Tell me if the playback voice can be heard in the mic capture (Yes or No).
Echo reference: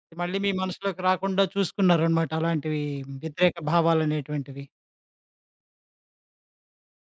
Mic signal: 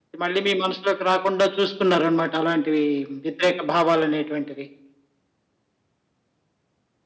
Yes